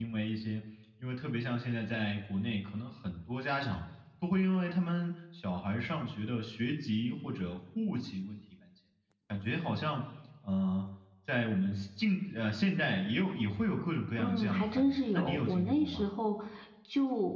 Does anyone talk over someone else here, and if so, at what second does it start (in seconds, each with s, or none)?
14.2 s